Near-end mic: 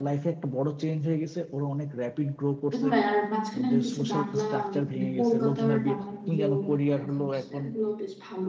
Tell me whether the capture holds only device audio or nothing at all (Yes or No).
No